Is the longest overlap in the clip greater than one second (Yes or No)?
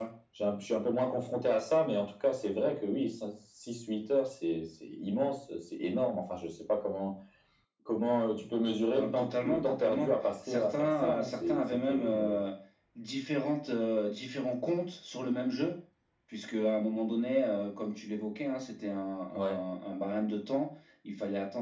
Yes